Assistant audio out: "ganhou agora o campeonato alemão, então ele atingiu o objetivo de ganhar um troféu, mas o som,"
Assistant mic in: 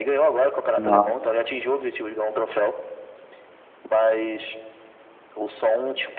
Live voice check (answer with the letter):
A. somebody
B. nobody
A